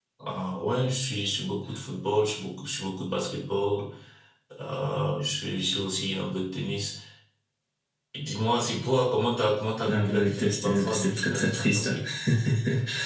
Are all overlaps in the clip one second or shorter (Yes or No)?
No